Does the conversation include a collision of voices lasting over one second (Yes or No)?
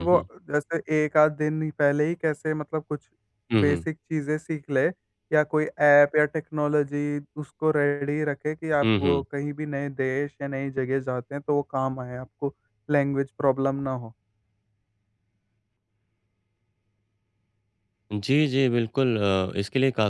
No